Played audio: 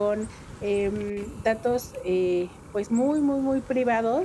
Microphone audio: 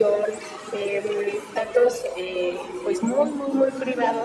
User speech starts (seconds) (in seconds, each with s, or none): none